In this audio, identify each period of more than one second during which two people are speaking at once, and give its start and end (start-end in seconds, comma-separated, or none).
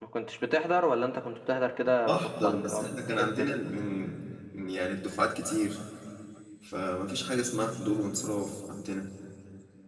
2.0-3.6